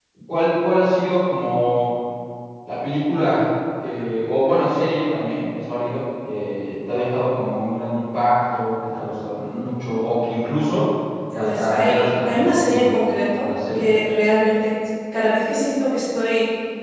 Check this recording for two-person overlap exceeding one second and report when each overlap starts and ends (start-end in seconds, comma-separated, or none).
11.3-12.9